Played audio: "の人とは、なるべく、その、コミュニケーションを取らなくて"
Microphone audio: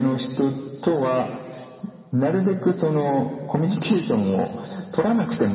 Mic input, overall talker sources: echo only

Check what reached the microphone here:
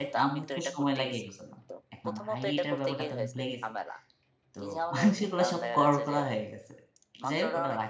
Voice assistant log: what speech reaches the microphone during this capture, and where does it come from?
both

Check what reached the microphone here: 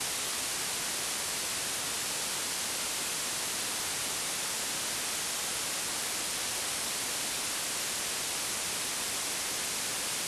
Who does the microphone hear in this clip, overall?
neither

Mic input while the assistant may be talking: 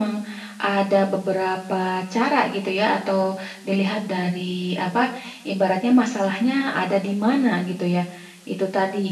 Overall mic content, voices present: echo only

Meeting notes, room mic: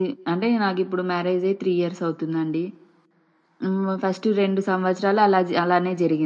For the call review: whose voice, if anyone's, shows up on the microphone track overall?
user only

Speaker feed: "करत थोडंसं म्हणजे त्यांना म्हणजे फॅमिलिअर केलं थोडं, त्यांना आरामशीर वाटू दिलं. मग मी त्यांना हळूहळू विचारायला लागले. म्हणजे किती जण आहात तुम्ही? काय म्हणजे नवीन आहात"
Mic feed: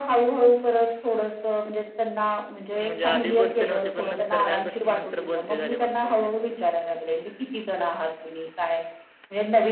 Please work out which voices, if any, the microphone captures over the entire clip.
both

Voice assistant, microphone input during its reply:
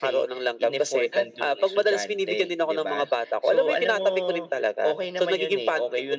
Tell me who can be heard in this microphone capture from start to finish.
echo only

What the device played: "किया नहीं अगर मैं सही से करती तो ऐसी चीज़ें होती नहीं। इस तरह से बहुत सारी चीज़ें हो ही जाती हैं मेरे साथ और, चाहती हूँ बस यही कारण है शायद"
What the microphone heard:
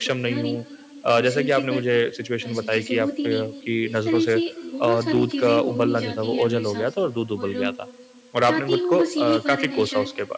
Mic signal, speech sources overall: both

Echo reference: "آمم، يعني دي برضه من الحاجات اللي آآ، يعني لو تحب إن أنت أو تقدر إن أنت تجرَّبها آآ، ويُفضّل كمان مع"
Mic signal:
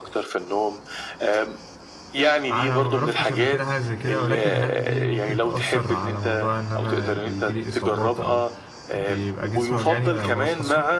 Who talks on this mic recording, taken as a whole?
both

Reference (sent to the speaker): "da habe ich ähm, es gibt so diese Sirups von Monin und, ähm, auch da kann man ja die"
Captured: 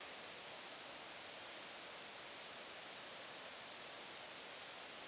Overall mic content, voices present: neither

